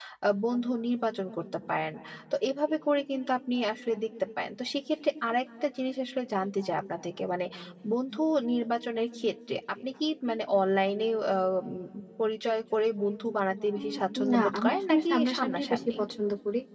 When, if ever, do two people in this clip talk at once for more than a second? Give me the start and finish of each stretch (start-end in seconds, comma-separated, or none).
14.3-15.8